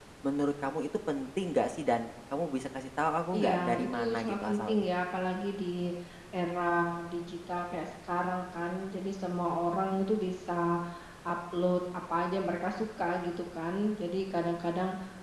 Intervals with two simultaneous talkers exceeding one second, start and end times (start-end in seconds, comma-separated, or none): 3.4-4.9